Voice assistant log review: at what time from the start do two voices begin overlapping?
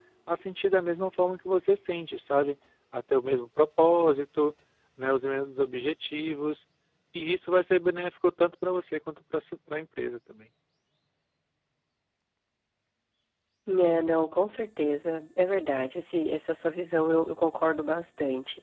none

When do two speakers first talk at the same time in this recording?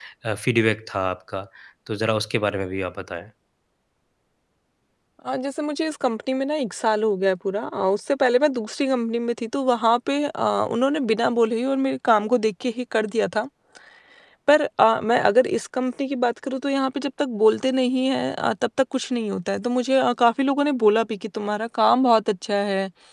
none

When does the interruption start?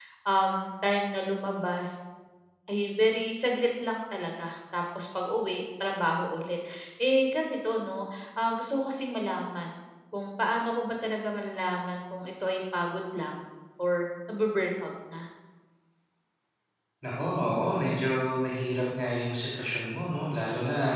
none

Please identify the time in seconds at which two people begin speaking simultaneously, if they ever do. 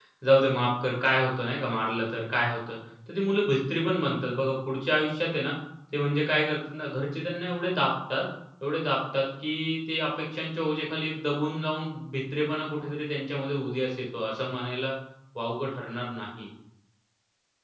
none

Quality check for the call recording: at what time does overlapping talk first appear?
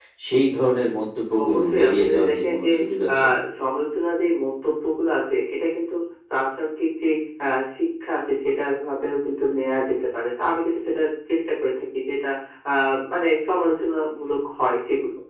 1.4 s

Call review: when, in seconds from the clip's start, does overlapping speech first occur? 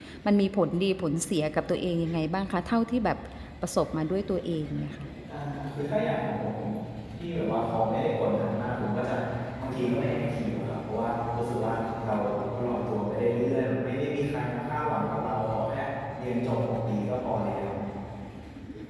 none

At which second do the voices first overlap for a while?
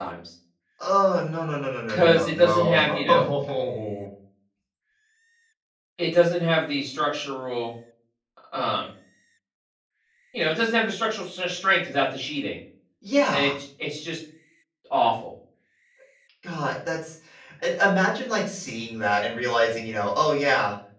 1.9 s

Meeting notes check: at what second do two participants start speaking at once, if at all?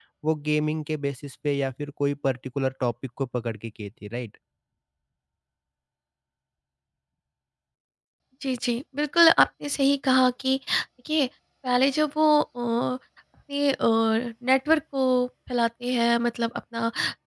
none

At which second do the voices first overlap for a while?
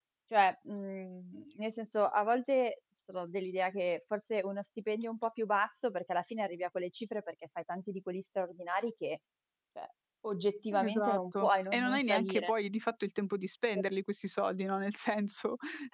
10.8 s

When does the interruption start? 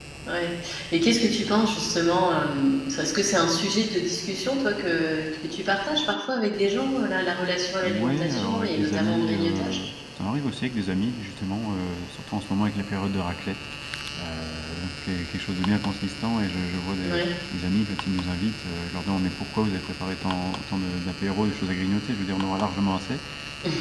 7.8 s

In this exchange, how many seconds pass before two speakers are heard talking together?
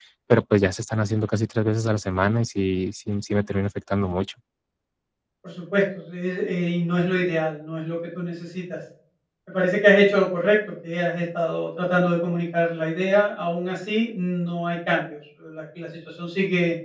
none

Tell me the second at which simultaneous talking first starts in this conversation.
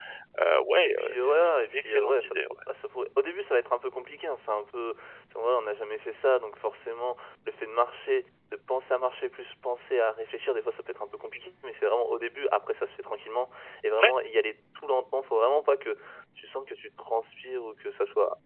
0.8 s

